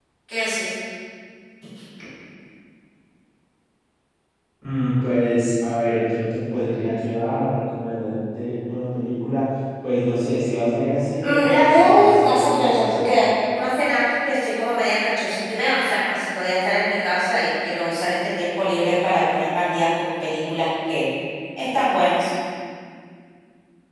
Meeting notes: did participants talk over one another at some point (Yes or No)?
Yes